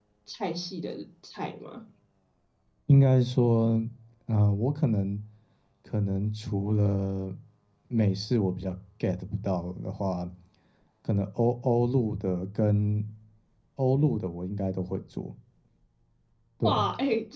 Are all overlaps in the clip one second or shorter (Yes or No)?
Yes